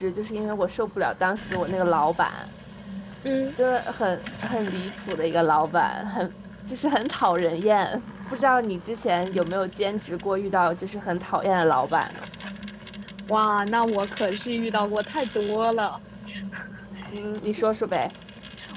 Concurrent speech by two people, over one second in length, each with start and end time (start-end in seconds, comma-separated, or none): none